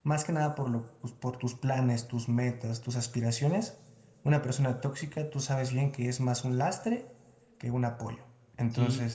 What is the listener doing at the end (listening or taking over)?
taking over